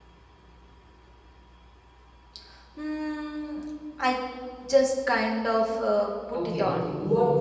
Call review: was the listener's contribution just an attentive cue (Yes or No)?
No